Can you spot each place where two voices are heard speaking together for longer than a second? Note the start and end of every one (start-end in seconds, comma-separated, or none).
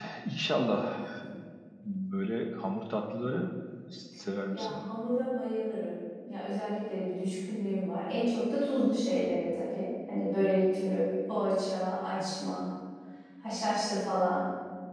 none